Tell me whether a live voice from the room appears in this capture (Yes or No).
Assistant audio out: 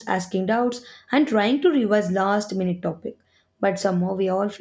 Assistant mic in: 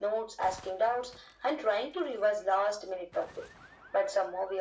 No